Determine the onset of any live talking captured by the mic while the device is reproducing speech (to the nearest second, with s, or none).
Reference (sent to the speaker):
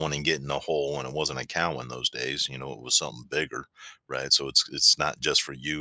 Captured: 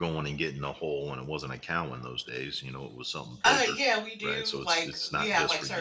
3 s